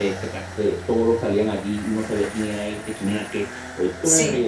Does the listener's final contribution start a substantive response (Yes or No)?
No